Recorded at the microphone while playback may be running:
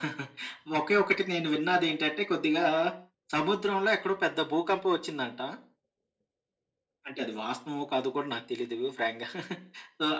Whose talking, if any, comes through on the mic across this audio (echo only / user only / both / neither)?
echo only